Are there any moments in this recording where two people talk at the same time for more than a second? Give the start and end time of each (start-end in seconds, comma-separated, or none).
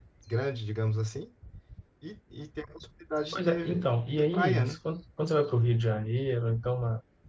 3.3-4.8